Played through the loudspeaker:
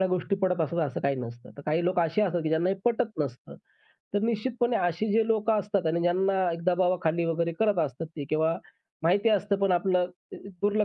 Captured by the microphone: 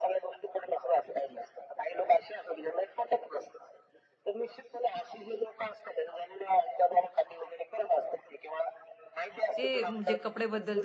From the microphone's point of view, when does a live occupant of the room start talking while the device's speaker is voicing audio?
10 s

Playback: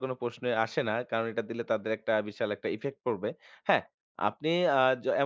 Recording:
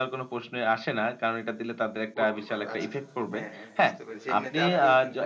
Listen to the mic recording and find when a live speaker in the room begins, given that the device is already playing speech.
2 s

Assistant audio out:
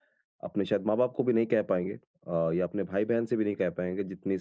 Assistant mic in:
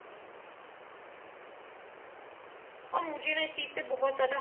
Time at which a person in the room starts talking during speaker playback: 3 s

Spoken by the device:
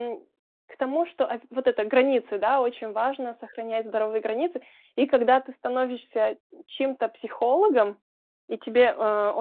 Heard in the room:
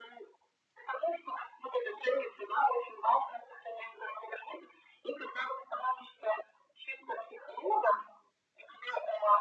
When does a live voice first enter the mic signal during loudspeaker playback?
none

